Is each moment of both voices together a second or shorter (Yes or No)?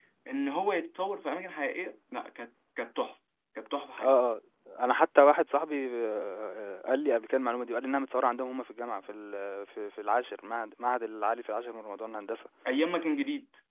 Yes